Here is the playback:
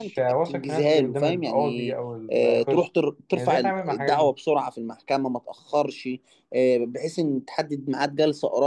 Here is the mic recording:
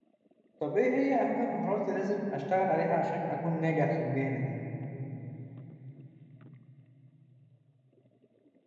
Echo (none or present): none